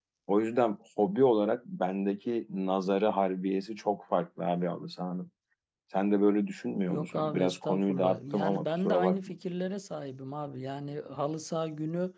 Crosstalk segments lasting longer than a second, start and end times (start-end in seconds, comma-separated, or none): 6.9-9.3